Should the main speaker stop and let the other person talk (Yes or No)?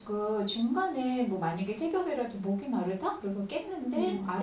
No